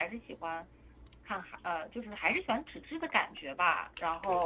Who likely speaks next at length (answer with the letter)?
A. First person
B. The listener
A